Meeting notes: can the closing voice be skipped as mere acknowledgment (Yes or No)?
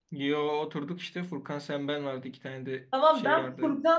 No